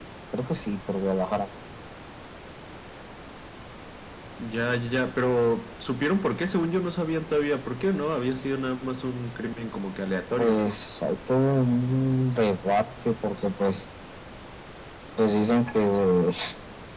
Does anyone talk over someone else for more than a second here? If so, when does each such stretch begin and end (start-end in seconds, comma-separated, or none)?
none